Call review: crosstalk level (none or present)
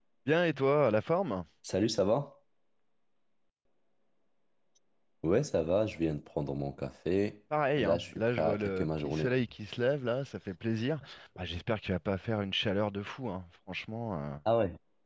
present